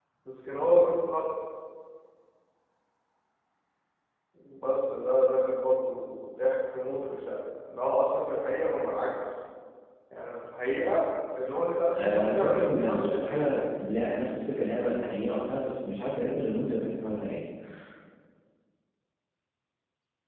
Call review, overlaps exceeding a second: present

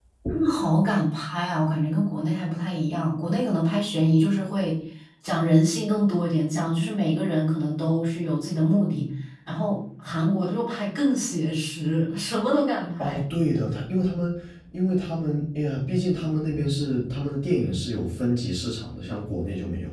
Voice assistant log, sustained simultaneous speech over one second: none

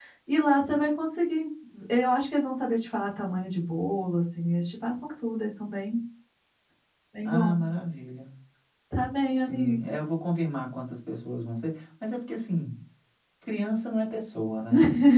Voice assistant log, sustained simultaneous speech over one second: none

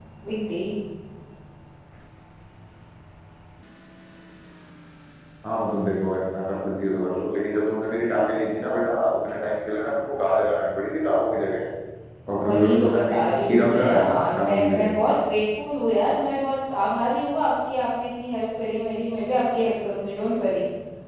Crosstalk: present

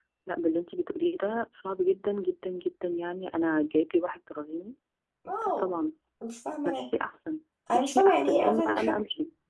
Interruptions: present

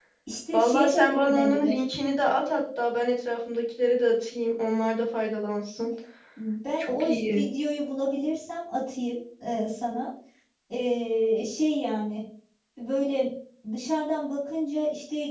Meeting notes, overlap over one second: present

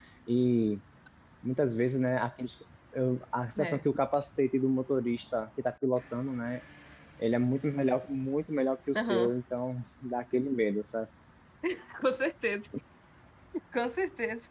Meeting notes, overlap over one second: none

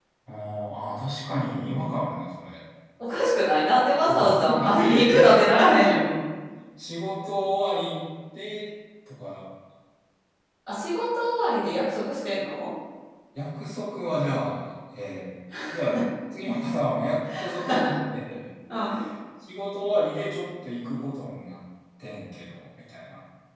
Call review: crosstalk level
present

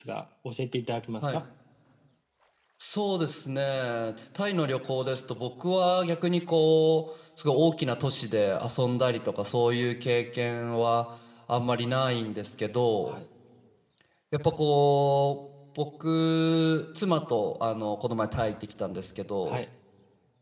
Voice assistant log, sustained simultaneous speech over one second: none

